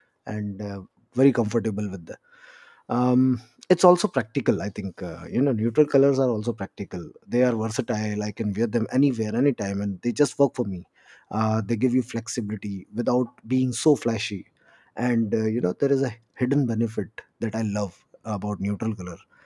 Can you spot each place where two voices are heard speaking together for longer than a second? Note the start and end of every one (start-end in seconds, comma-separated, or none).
none